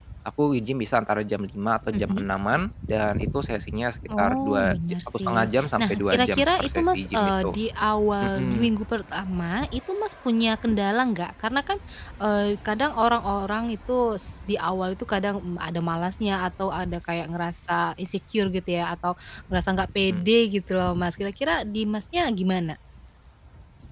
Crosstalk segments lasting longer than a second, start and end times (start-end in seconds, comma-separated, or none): 4.2-7.5